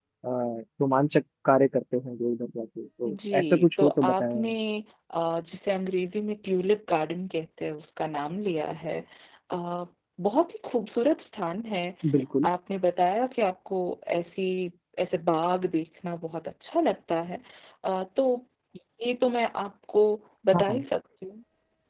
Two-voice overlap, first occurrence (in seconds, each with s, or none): 3.1 s